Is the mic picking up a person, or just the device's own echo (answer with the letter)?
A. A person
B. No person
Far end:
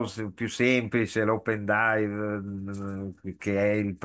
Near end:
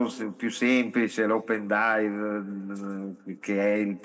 B